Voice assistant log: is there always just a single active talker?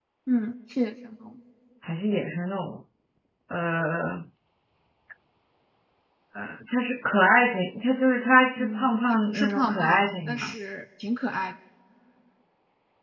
No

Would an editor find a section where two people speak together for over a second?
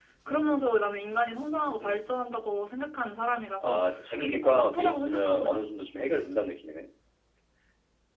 Yes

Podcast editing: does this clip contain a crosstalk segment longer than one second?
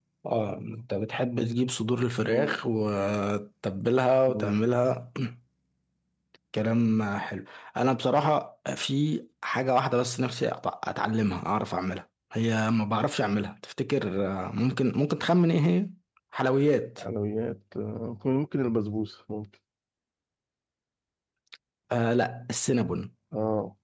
No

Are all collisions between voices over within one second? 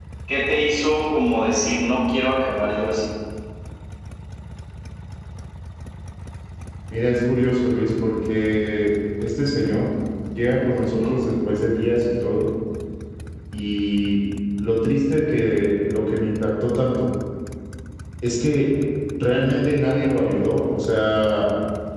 Yes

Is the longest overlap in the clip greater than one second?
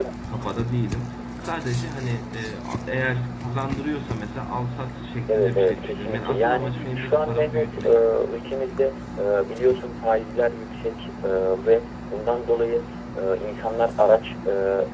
Yes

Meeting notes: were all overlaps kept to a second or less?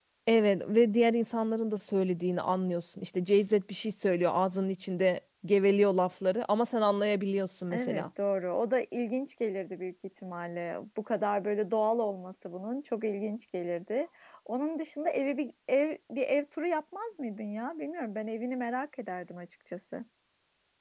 Yes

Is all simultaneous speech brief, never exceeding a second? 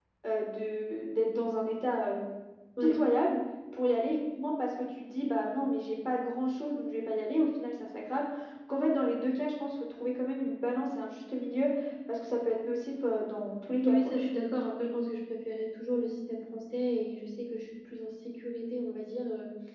Yes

